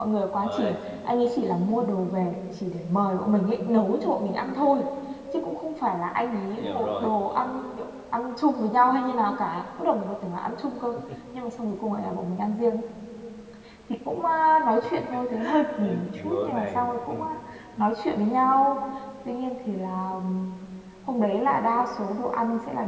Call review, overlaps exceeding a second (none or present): present